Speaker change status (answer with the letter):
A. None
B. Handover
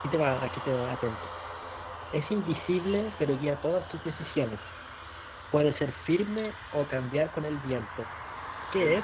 B